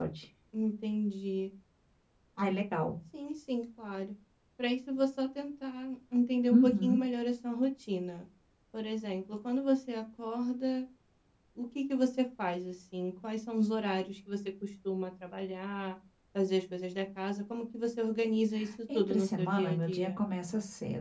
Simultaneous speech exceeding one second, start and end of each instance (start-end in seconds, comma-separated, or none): 18.9-20.2